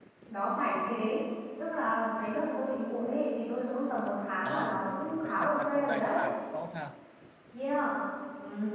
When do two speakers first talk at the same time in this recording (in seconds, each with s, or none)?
4.4 s